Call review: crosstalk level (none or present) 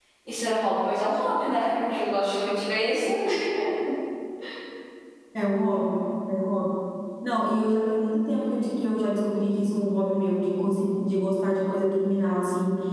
none